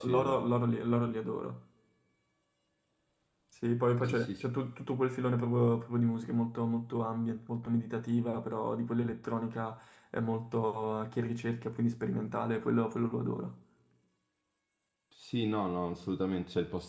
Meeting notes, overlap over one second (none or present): none